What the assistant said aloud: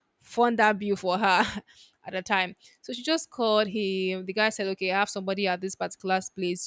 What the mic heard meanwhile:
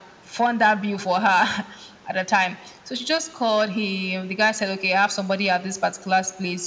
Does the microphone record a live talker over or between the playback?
No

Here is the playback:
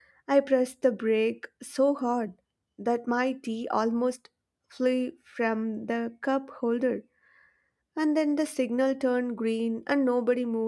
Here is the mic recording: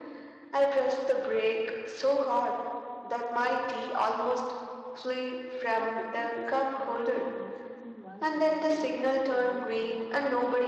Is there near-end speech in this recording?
Yes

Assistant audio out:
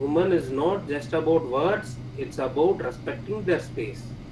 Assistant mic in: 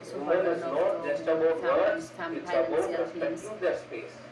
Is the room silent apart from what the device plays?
No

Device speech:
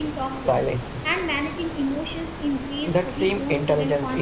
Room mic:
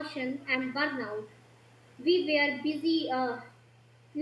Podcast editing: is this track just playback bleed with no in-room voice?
No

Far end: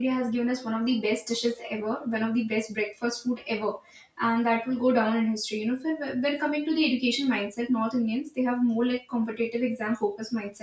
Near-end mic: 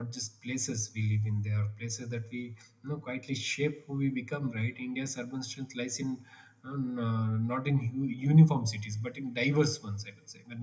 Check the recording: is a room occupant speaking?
Yes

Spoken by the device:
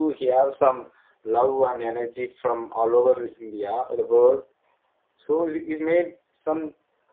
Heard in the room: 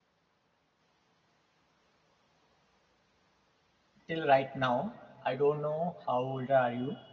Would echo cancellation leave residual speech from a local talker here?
Yes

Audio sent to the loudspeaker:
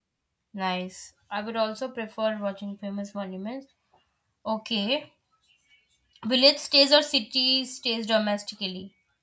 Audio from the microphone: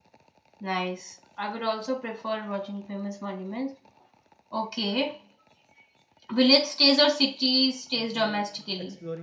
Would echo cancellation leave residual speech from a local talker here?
Yes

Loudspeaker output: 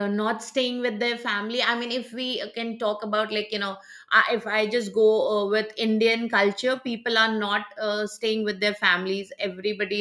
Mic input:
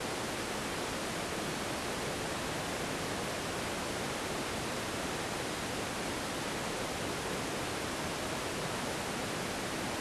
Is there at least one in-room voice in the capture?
No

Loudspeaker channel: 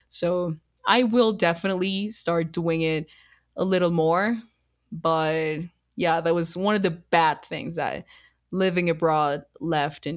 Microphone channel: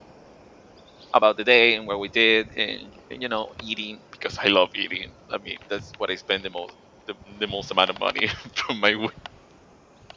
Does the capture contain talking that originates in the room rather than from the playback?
Yes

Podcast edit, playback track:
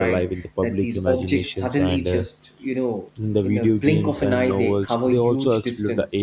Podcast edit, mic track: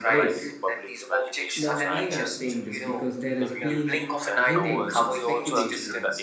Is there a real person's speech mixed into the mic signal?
Yes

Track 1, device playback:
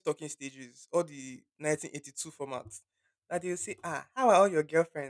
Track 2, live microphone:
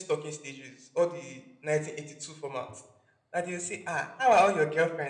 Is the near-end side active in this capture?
No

